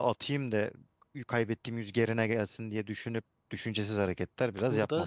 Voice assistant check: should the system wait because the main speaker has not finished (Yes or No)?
No